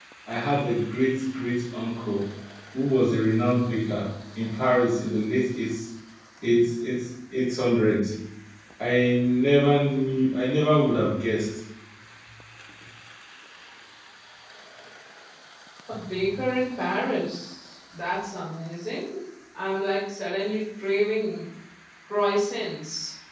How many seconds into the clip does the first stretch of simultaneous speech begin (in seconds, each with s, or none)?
none